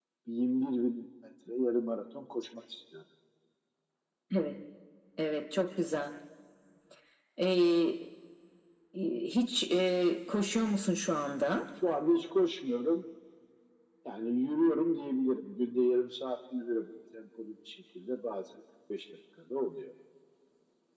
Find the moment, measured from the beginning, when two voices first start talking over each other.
none

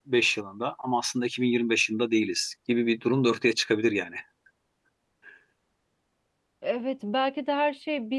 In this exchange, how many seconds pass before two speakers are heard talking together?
none

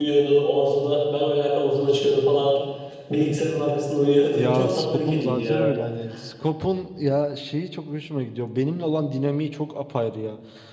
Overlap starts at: 4 s

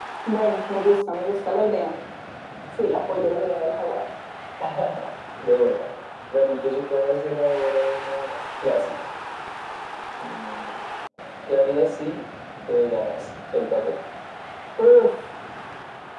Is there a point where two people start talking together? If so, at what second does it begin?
none

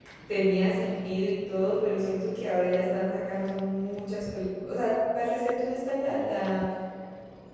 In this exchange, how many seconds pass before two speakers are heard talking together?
none

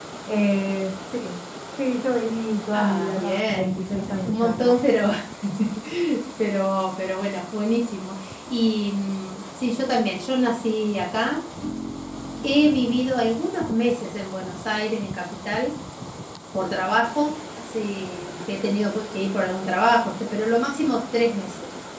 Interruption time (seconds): 3 s

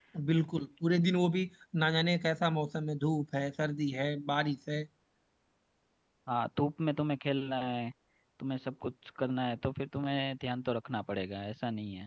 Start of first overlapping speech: none

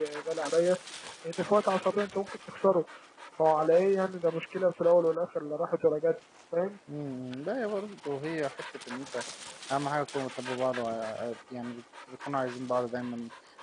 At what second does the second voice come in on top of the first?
none

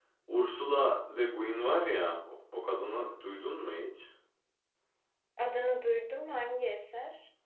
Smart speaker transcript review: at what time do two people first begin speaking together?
none

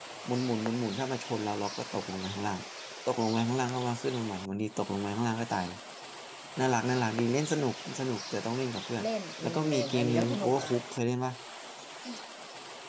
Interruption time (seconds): 9 s

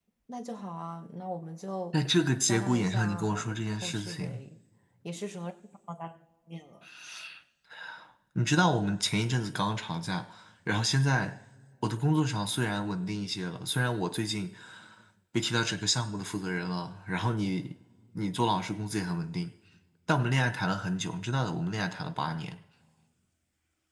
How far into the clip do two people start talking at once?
2 s

